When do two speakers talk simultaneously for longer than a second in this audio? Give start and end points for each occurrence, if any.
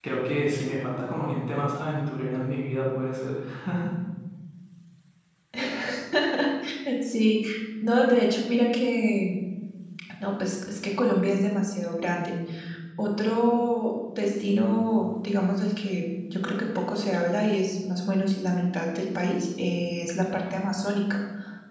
none

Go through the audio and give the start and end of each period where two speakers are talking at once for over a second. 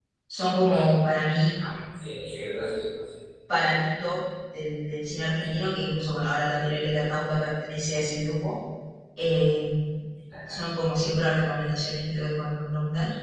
none

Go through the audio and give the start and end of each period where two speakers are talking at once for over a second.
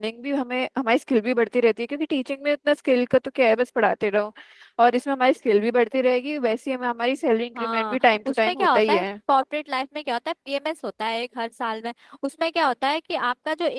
7.6-9.0

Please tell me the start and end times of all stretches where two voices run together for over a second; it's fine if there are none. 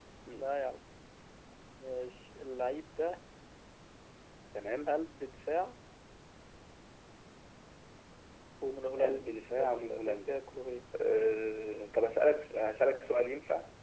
9.0-10.4

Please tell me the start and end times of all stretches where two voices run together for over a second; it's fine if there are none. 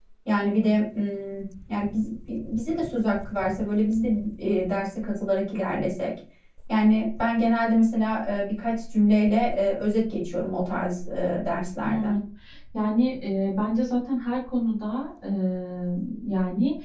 none

